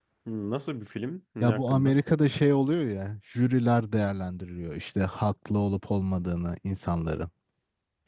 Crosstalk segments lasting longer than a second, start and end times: none

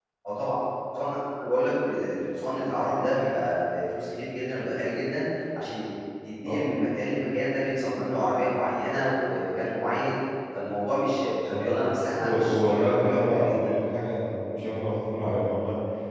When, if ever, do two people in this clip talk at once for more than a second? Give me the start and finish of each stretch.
12.2-13.5

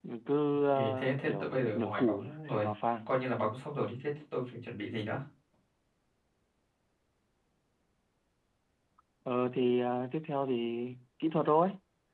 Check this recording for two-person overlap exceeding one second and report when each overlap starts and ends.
0.7-2.6

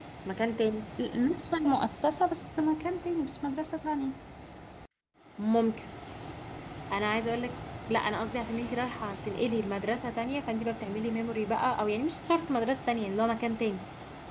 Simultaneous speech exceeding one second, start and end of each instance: none

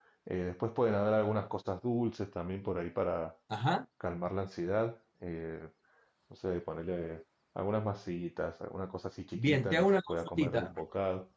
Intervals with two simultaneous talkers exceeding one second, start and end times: 9.3-10.7

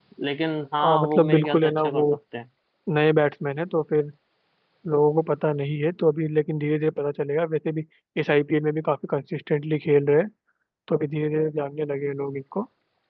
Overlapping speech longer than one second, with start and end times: 0.8-2.0

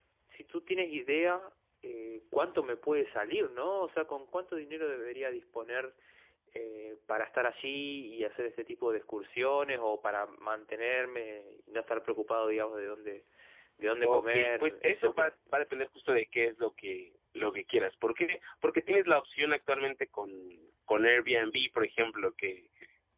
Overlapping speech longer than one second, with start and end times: 14.1-15.3

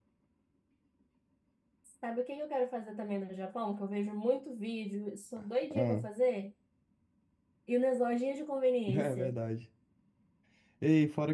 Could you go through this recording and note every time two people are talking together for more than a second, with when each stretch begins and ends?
none

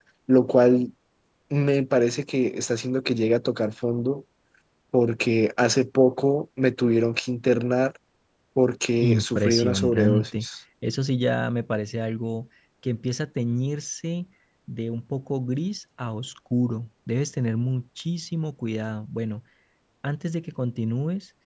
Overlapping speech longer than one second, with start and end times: 9.0-10.4

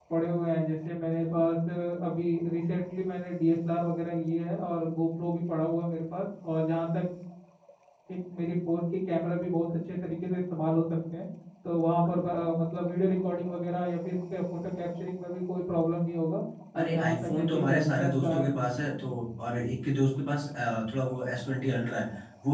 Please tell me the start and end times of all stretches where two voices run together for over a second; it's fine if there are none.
16.7-18.4

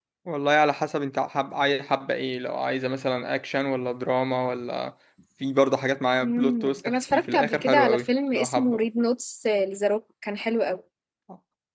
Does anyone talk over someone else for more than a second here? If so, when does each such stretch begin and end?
6.2-8.8

